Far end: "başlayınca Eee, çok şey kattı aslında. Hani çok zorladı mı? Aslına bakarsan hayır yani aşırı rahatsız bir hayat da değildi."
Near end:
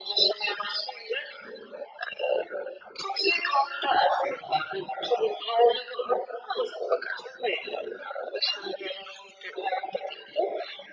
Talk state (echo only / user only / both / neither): echo only